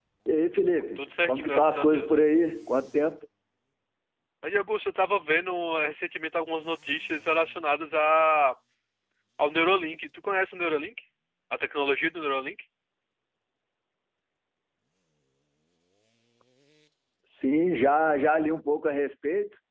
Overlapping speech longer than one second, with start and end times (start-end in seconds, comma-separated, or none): 1.0-2.2